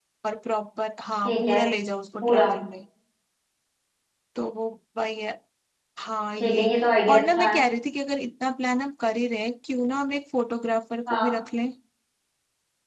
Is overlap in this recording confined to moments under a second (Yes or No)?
Yes